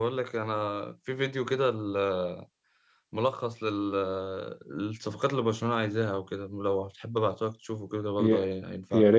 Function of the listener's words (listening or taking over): taking over